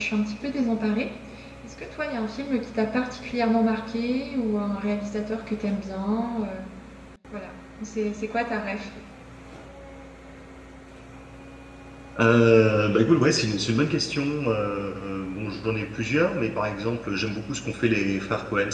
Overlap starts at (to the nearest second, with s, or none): none